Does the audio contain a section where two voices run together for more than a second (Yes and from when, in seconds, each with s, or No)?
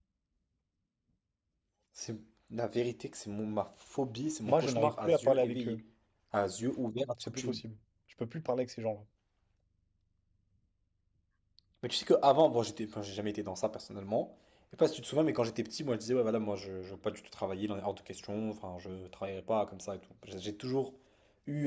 Yes, from 4.5 s